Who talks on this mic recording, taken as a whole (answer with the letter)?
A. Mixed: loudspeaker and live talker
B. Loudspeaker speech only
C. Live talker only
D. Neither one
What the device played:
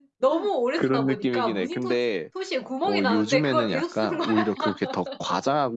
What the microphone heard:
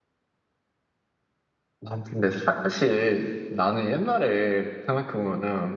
C